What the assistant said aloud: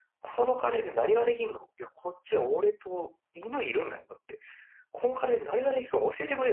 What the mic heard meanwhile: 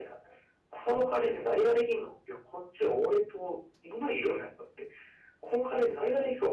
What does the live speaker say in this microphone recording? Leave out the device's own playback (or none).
none